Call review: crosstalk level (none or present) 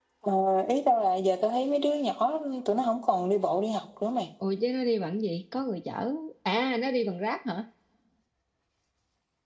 none